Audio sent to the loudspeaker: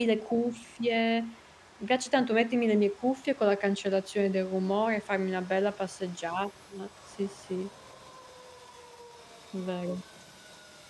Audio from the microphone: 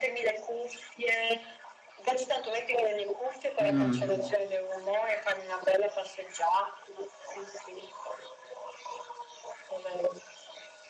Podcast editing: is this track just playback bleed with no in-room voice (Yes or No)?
No